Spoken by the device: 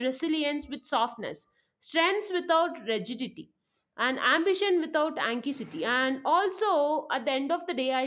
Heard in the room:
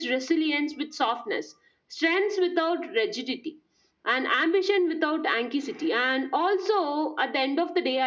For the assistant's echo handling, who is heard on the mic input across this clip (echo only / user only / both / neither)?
echo only